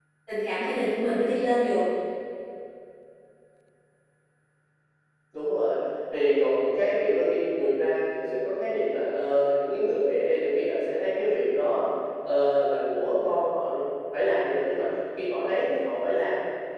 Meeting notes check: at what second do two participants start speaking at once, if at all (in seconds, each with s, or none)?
none